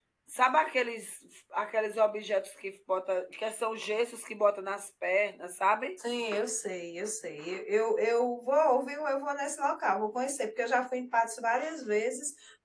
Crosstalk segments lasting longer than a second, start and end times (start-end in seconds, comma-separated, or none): none